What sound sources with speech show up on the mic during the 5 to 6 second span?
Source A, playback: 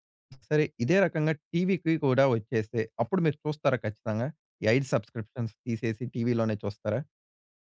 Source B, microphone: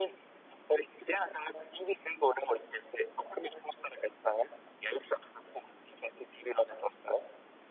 echo only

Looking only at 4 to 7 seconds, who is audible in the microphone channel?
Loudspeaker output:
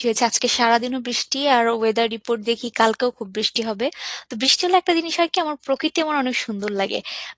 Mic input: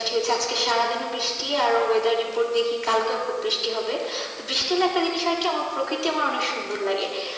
echo only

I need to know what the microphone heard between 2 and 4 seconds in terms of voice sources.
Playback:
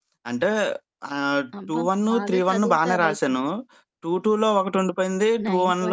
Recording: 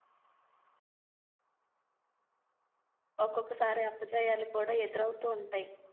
user only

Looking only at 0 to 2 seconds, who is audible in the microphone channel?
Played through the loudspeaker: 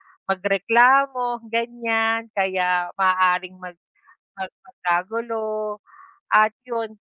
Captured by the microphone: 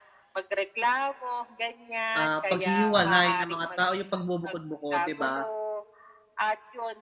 echo only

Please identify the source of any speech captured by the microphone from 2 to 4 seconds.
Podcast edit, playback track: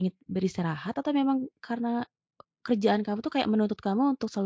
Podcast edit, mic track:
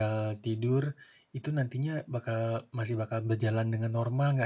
user only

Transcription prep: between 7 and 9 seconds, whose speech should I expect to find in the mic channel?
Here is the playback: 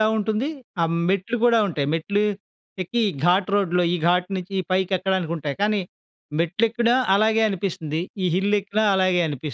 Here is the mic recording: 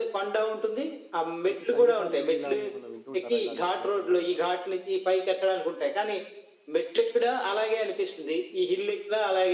echo only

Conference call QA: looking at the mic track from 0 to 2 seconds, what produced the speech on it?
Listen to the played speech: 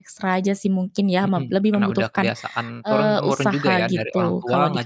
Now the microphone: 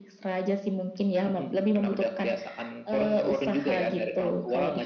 echo only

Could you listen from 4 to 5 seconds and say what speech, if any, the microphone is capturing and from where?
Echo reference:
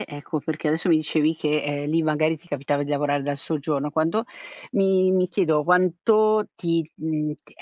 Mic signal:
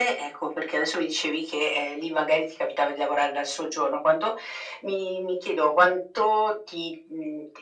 echo only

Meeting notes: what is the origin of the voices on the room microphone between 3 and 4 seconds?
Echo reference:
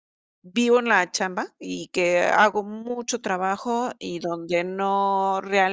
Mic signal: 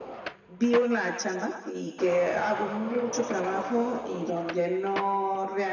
echo only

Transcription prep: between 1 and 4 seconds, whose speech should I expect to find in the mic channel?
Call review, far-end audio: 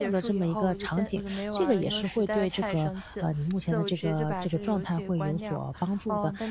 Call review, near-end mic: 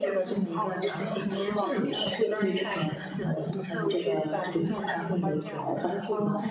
echo only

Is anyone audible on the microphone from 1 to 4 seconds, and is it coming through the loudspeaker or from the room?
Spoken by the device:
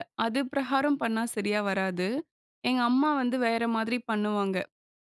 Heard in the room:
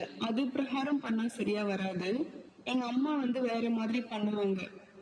echo only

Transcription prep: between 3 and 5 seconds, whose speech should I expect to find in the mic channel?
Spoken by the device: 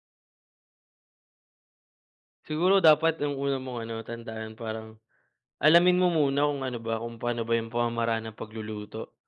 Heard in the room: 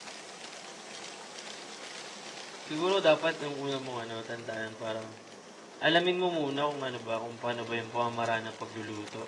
echo only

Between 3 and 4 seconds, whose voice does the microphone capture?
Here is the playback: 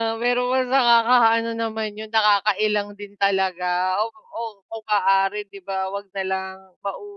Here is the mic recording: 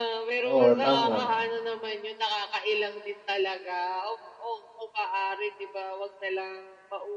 echo only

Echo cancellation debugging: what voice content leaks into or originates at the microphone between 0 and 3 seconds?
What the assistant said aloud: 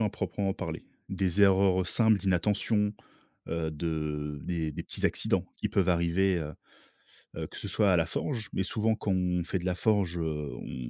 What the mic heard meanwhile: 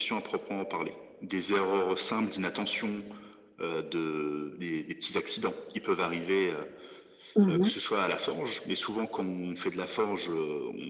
echo only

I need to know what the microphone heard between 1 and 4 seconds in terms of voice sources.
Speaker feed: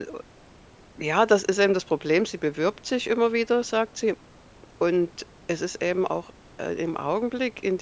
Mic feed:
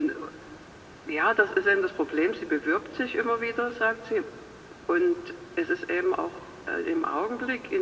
echo only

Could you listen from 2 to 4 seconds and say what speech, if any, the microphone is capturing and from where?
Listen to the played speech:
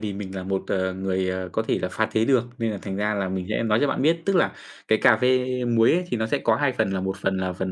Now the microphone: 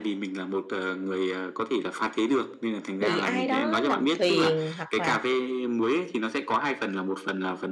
both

